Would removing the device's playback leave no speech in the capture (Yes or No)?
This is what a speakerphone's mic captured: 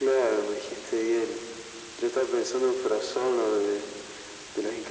Yes